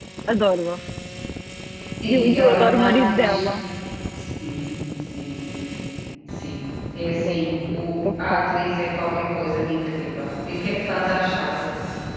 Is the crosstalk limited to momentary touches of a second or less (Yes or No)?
No